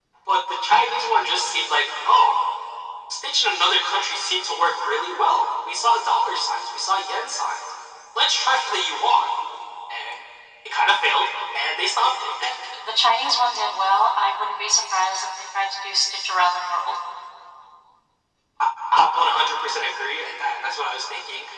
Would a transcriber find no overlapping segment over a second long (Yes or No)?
Yes